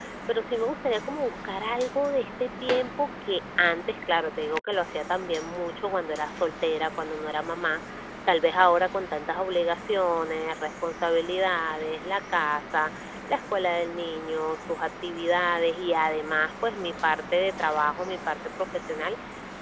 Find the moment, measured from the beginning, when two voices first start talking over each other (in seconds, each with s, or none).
none